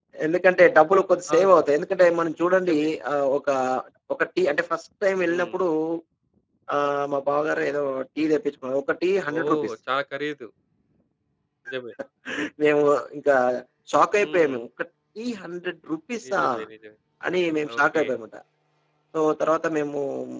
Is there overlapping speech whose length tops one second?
No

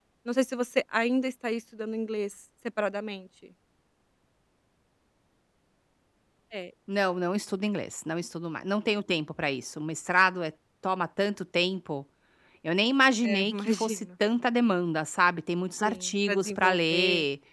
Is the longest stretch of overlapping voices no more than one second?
No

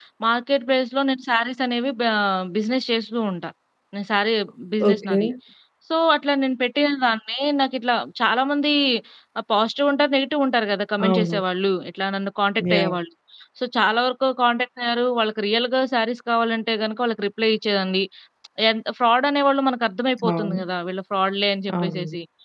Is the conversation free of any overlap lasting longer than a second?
Yes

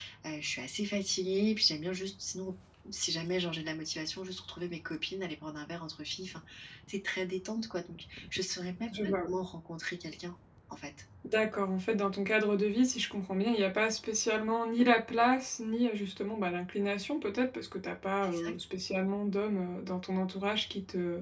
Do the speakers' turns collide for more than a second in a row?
No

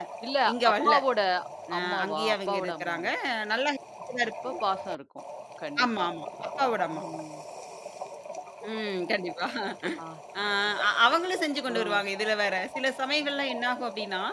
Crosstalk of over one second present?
Yes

